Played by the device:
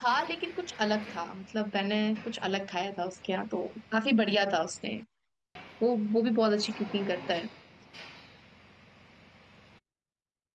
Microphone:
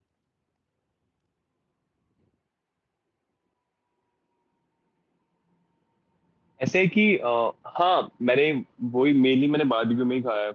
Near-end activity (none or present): present